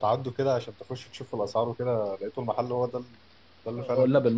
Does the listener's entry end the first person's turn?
Yes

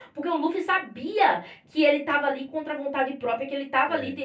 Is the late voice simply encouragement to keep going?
Yes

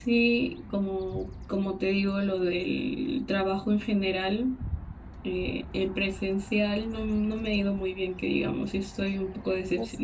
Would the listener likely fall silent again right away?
Yes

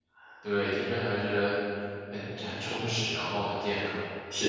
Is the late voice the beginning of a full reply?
Yes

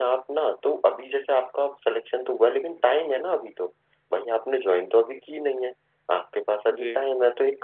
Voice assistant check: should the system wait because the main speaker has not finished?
Yes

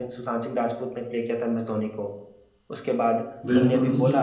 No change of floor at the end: No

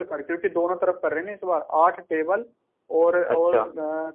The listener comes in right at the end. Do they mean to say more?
No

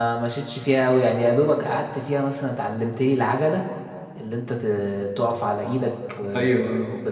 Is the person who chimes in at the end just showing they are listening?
Yes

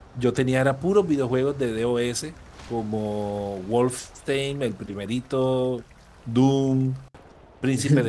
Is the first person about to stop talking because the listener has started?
No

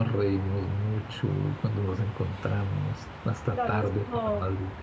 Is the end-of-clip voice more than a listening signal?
Yes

